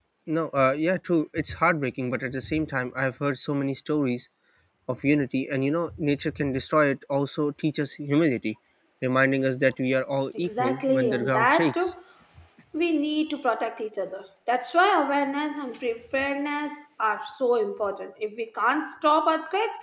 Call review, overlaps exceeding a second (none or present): present